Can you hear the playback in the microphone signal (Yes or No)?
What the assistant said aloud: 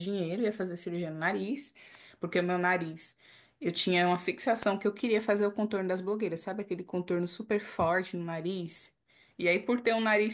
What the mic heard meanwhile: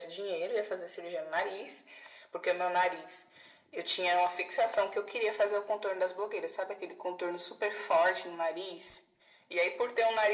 Yes